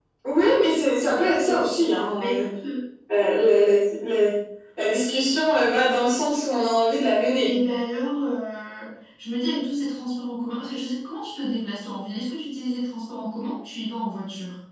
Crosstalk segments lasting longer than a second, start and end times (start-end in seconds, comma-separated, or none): 1.1-2.4